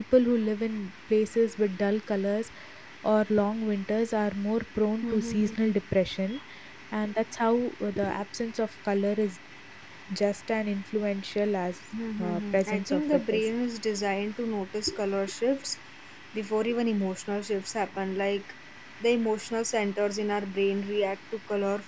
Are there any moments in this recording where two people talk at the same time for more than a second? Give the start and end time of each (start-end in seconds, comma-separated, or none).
12.2-13.5